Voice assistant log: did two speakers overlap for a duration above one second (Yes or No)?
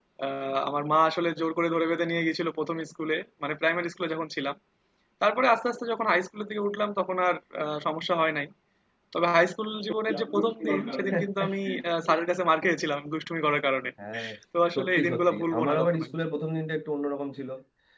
Yes